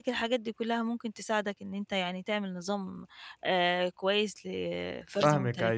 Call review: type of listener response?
taking over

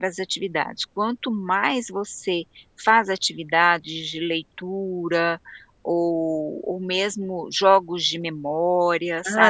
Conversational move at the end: taking over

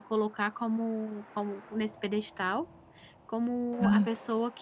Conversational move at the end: listening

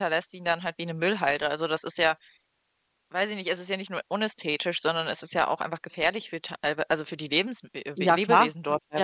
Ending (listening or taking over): taking over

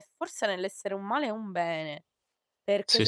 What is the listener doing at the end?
listening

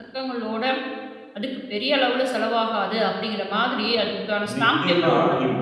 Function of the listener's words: taking over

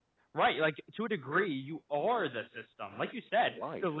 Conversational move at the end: listening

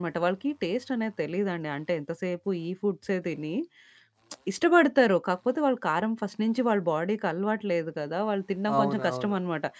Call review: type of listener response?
listening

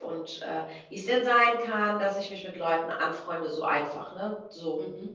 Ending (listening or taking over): listening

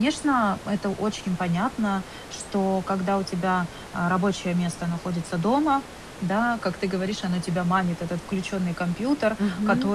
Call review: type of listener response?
listening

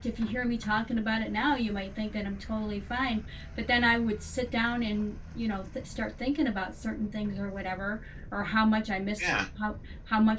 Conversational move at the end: listening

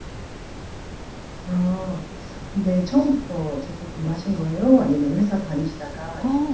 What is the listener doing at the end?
taking over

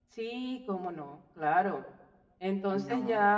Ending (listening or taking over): listening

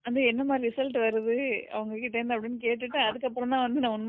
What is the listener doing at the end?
listening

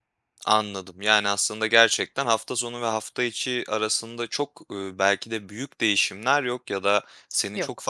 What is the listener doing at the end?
listening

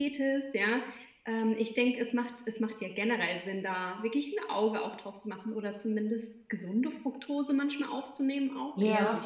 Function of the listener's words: listening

